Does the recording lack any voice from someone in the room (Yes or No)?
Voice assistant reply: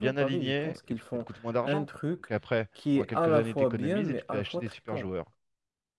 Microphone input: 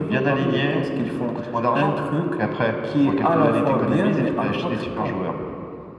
Yes